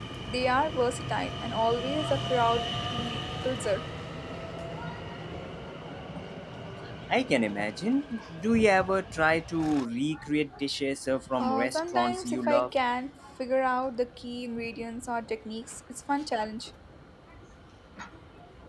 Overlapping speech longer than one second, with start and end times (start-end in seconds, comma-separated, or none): 11.4-12.7